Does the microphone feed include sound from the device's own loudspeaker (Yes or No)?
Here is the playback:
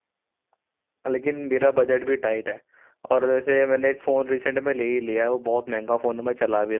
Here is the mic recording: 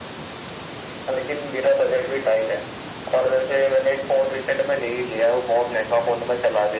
Yes